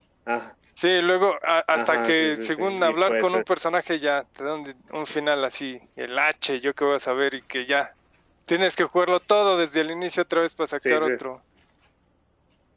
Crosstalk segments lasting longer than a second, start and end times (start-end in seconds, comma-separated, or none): 1.7-3.5